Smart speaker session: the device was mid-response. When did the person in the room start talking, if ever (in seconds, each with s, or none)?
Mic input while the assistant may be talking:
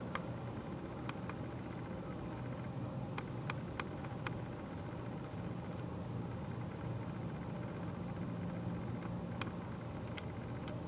none